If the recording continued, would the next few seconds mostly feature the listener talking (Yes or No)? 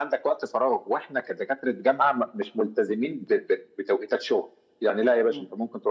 No